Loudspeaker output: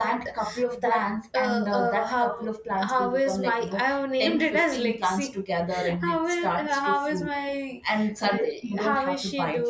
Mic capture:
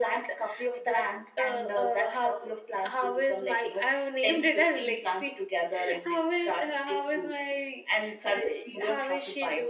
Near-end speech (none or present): none